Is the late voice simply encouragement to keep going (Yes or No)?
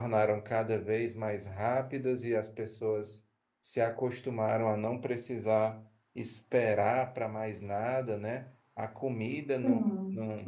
Yes